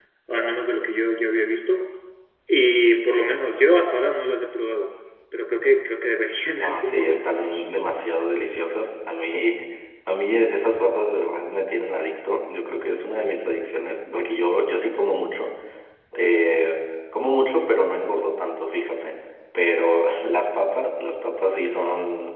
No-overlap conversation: No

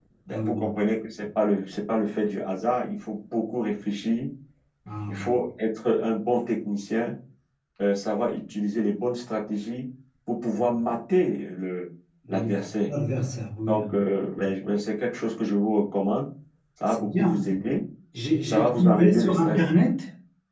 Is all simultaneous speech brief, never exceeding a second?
No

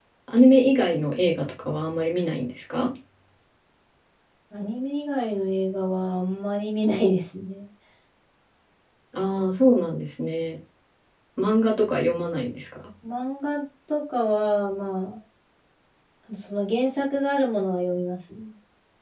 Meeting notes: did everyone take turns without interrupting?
Yes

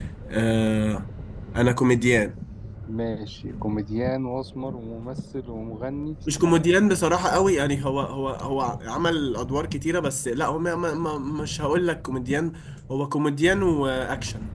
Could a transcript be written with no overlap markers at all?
Yes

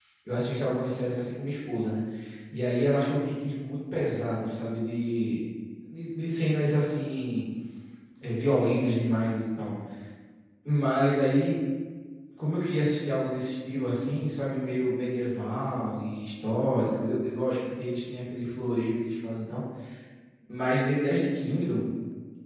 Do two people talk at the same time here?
No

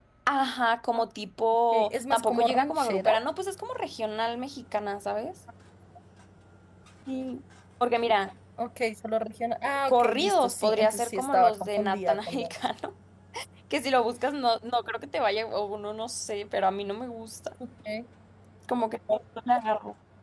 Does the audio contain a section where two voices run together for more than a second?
Yes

